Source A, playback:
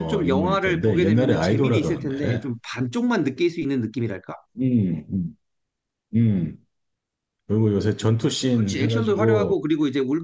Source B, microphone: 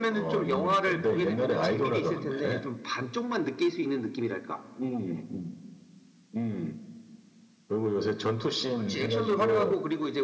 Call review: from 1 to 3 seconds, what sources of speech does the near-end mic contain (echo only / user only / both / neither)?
echo only